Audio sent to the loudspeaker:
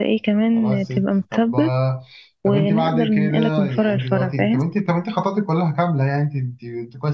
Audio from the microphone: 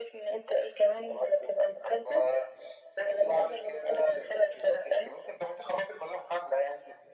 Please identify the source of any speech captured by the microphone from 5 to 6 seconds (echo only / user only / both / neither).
echo only